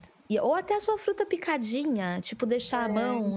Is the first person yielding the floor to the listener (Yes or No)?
No